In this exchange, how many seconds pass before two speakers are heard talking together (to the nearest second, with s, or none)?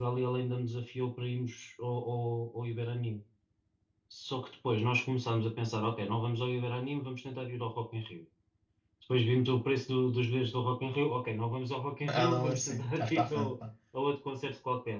12 s